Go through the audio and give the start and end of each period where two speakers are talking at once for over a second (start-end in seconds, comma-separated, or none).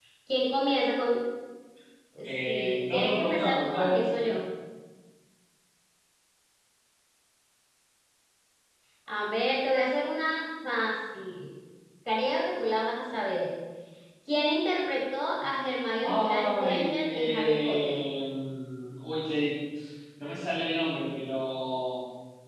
2.5-4.4, 16.0-18.0